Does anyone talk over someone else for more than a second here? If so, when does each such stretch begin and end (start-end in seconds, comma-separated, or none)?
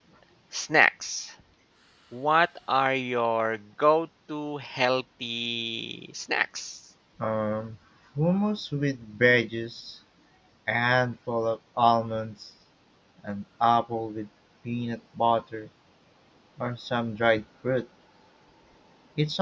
none